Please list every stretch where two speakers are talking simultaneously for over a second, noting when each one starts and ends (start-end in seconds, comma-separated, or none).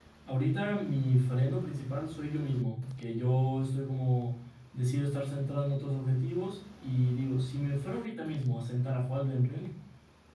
none